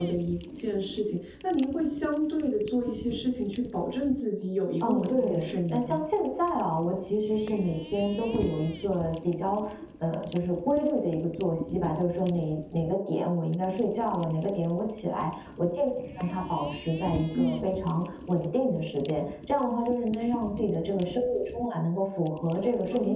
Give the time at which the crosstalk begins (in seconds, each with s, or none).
4.8 s